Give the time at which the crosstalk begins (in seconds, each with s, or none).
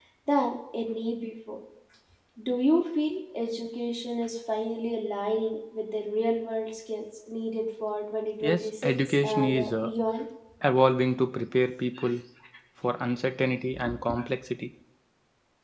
8.4 s